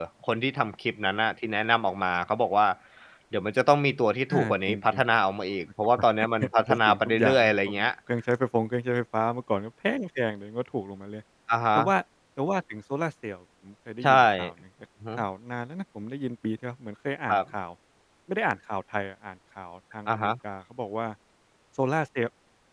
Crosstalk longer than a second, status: present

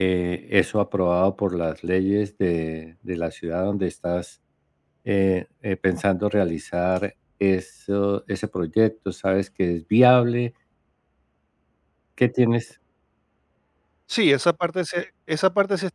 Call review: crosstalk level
none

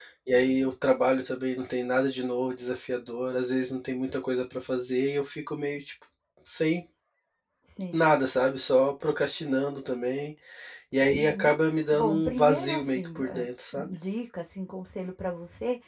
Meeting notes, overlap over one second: present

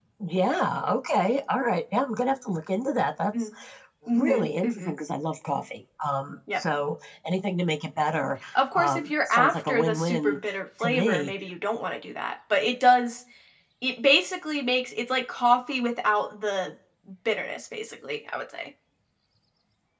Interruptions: present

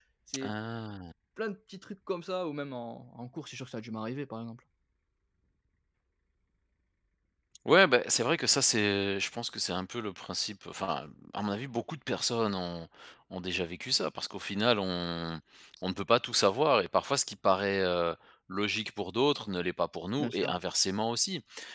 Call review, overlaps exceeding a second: none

